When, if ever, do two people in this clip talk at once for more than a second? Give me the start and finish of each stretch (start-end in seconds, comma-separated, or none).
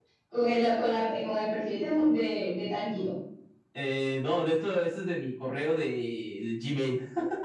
none